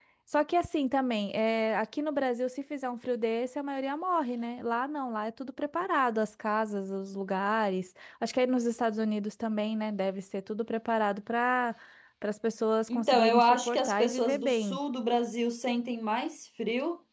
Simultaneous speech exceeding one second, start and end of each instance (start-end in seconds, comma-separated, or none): 12.9-14.8